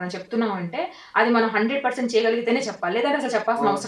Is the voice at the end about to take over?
Yes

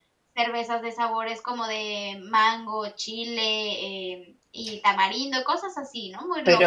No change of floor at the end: No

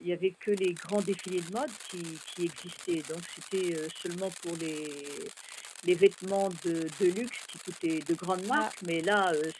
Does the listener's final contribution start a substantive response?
No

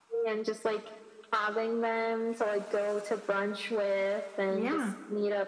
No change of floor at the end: Yes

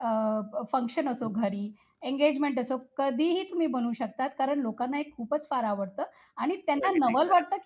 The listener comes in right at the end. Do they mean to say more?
No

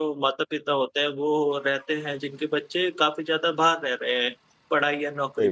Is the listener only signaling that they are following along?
Yes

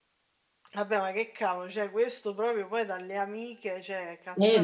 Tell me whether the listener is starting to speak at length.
Yes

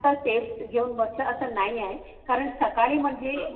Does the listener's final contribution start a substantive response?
No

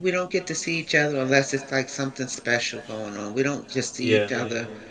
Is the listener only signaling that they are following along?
Yes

